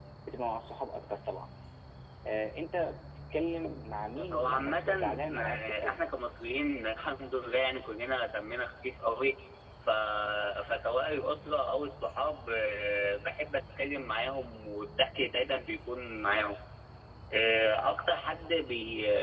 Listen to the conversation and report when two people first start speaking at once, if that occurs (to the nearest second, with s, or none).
4 s